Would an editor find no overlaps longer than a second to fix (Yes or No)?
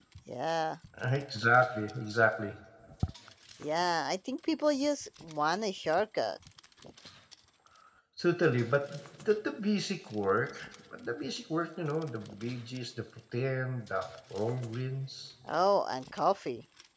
Yes